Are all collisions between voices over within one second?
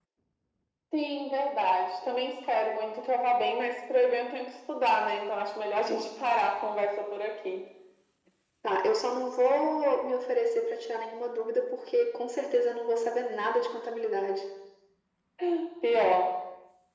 Yes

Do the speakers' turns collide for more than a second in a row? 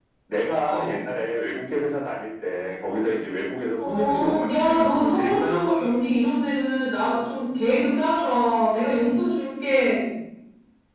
Yes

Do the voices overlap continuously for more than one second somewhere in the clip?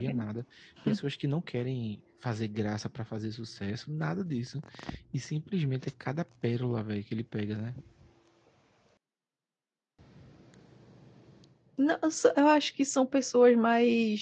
No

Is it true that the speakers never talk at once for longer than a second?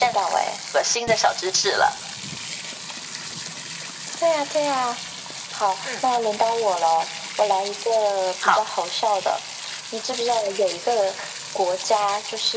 Yes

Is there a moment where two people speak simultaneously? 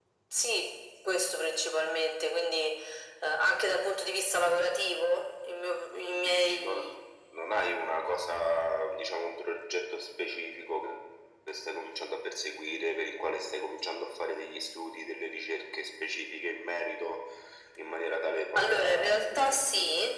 Yes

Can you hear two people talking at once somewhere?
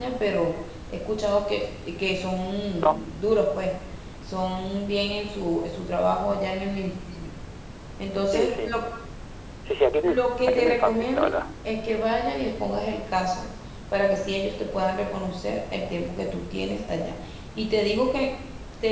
Yes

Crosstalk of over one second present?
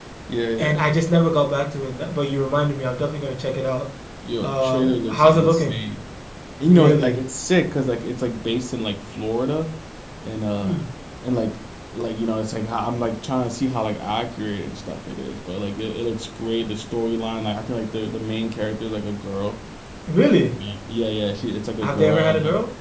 Yes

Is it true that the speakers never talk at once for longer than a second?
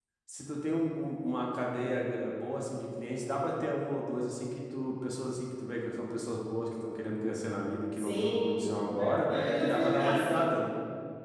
No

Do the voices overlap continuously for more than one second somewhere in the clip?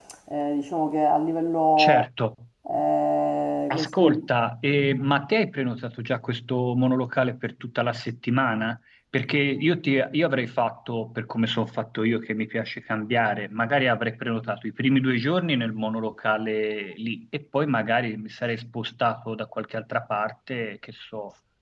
No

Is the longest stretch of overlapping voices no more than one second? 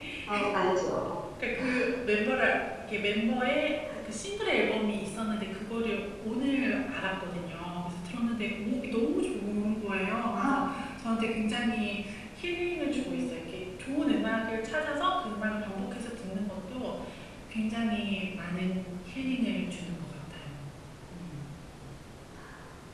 Yes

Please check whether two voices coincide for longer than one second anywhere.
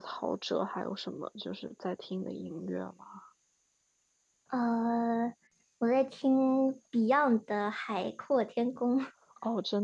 No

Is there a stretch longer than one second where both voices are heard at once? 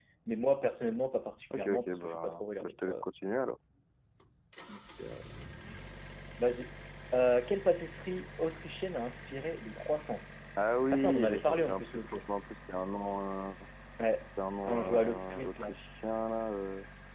Yes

